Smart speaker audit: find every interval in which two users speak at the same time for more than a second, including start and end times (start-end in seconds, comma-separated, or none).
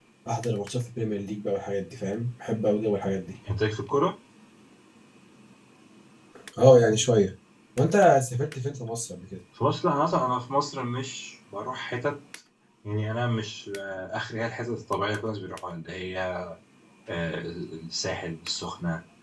none